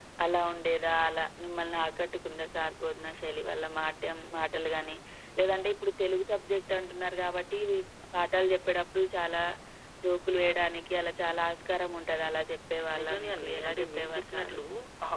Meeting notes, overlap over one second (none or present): present